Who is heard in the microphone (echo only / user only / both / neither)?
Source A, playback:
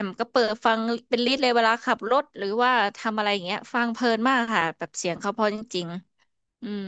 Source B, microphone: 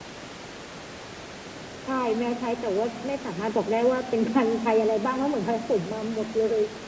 user only